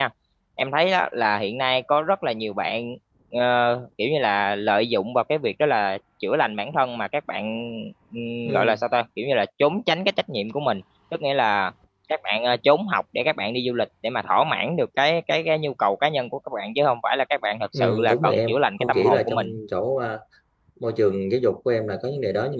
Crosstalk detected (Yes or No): Yes